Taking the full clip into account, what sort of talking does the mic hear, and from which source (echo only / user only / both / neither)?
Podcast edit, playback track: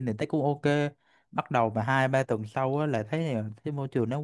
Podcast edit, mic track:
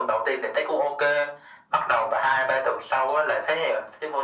echo only